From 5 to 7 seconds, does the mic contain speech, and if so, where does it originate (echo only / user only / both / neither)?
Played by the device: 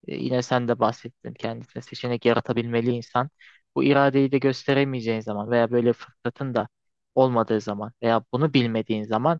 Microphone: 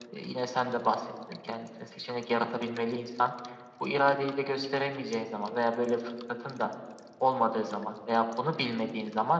echo only